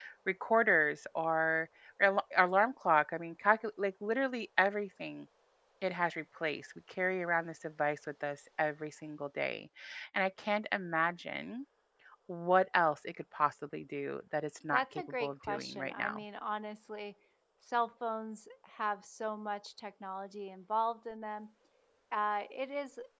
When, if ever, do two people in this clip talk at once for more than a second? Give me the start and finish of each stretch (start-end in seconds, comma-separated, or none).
14.7-16.2